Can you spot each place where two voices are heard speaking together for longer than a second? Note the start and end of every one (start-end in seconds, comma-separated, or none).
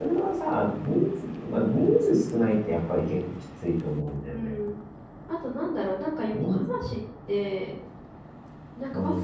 none